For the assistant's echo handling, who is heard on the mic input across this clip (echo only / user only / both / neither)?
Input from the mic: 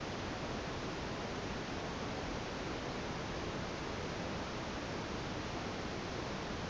neither